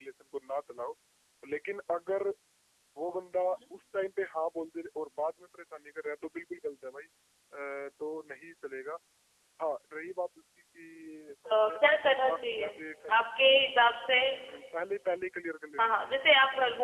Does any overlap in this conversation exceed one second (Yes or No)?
Yes